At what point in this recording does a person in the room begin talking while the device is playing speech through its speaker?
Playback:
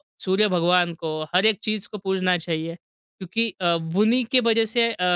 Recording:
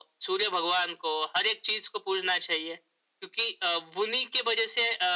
none

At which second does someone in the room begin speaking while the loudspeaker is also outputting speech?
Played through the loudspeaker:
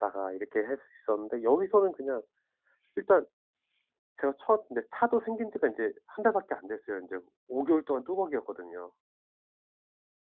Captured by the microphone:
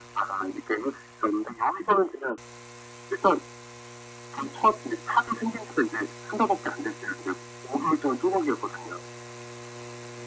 none

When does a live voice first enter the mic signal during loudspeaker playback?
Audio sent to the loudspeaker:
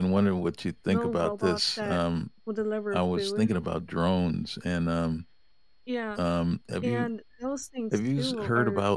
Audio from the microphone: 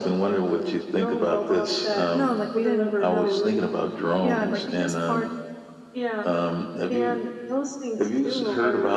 2.1 s

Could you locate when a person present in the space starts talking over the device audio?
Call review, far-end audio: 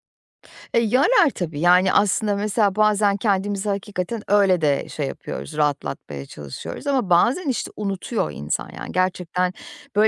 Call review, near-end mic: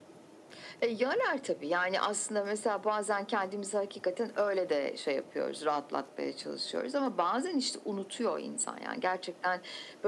none

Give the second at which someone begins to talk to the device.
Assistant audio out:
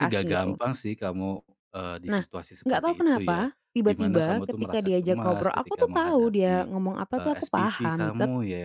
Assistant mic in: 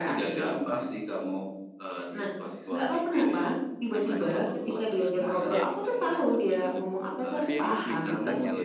2.7 s

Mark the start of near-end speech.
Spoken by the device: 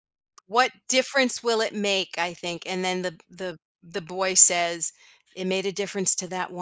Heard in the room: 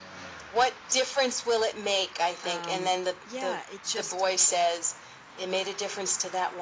2.4 s

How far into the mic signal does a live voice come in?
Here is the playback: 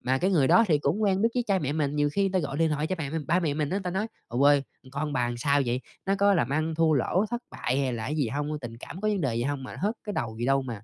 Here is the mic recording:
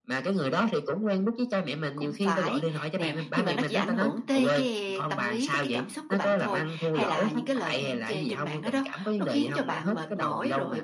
1.9 s

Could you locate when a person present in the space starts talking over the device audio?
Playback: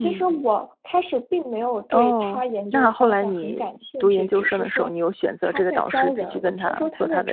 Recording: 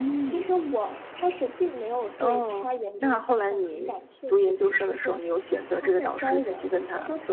none

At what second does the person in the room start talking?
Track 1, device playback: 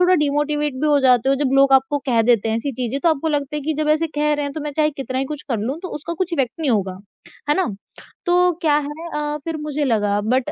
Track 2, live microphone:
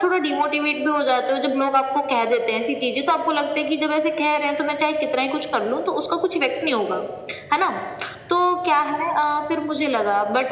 none

